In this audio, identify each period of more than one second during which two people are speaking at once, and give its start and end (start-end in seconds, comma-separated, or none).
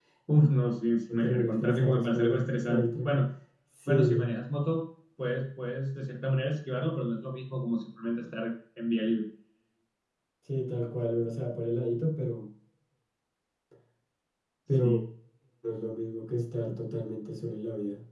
1.1-3.2